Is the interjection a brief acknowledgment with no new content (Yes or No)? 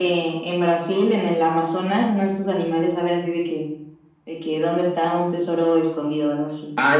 No